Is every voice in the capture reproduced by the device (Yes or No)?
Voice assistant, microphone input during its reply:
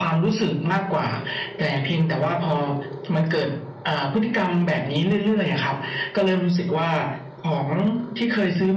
Yes